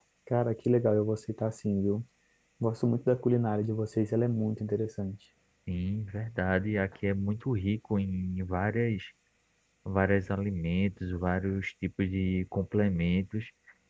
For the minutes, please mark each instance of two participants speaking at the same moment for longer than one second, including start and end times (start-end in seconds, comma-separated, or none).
none